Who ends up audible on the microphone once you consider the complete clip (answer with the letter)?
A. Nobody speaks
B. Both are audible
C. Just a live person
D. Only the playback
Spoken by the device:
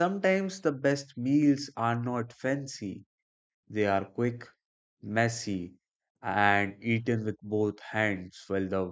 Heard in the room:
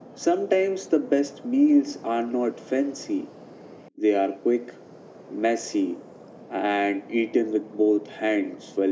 D